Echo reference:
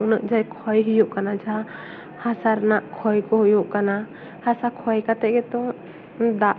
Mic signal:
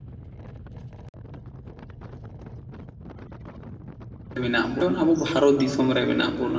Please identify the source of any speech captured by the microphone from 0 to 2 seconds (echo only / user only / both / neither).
neither